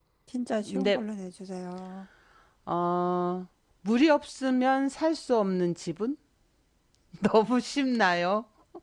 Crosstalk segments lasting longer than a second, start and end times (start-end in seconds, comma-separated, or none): none